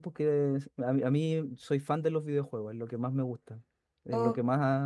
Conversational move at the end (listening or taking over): listening